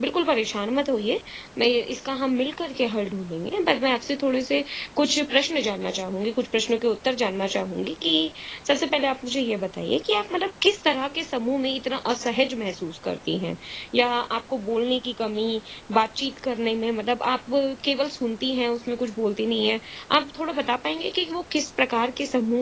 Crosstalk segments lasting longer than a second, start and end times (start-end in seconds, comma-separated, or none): none